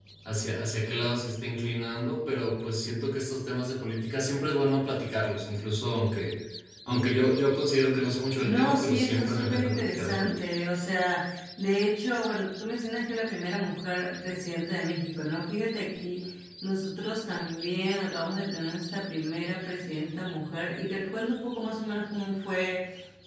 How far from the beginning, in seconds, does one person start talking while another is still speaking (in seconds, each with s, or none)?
8.4 s